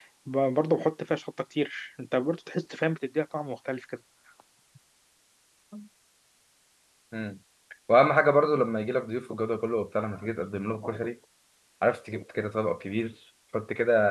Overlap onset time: none

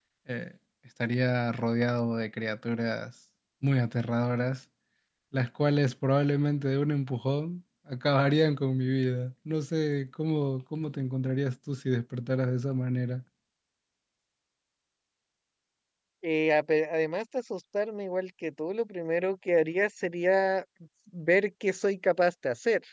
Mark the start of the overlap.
none

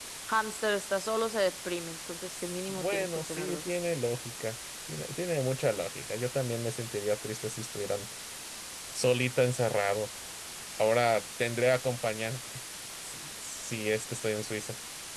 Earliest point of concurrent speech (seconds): 2.3 s

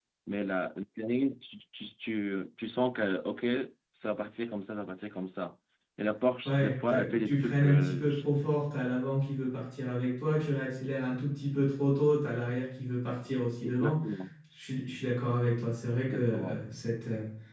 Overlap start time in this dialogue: 6.5 s

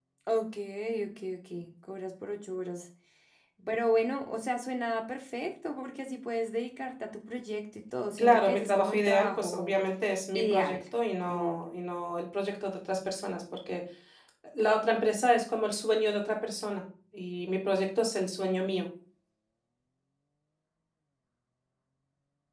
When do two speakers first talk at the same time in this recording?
8.2 s

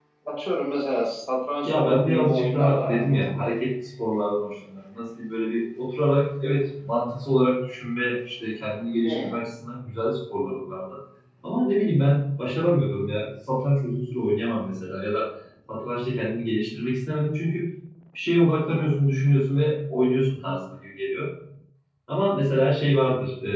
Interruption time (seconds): 1.6 s

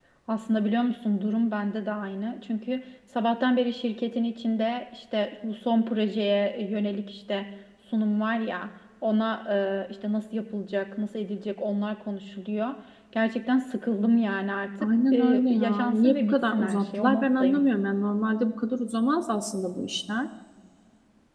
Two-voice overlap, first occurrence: 14.8 s

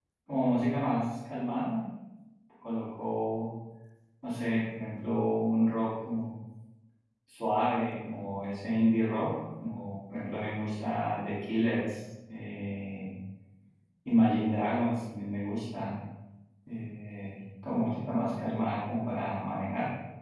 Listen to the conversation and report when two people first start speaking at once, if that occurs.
none

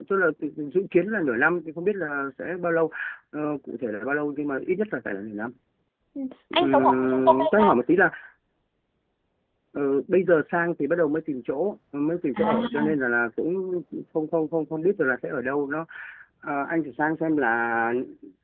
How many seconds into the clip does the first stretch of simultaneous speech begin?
6.5 s

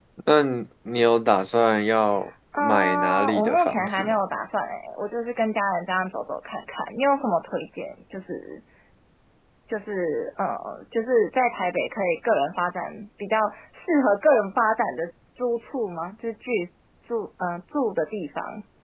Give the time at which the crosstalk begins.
2.5 s

